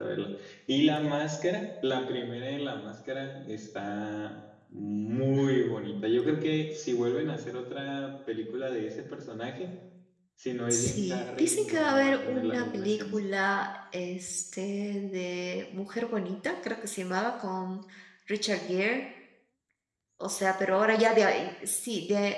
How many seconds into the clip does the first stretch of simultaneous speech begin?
10.7 s

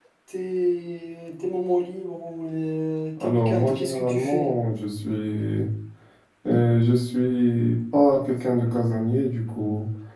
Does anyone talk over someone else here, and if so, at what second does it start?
3.2 s

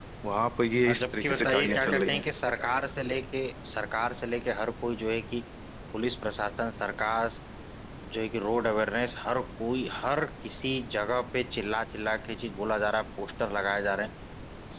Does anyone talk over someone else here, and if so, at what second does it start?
0.9 s

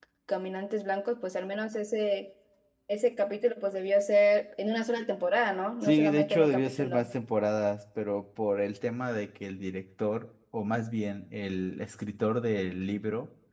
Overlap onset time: 5.8 s

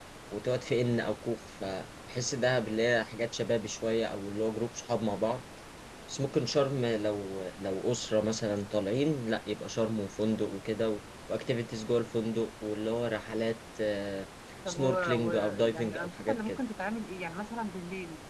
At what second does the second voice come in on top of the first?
14.7 s

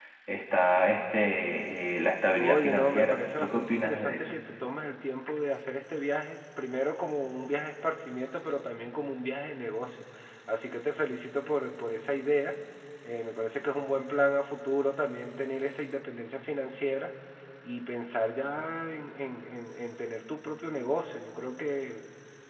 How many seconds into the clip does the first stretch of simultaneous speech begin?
2.4 s

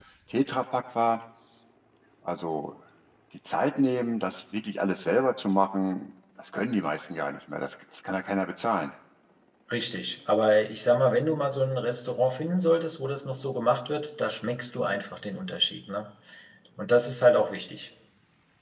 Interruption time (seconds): none

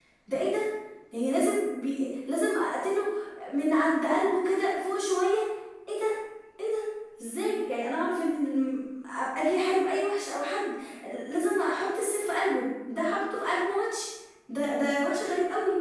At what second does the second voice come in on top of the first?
none

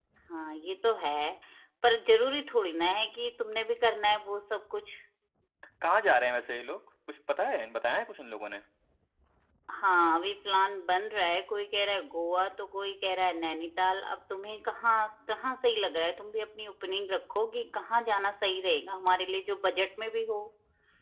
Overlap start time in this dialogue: none

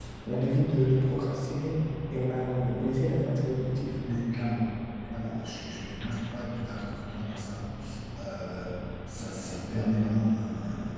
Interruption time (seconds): none

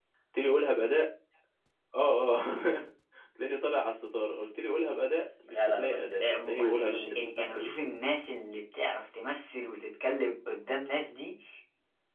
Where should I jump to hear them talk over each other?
5.5 s

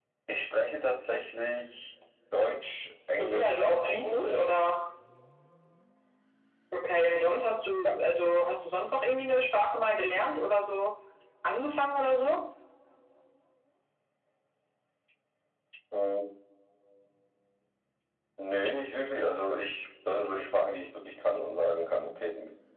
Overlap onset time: 3.2 s

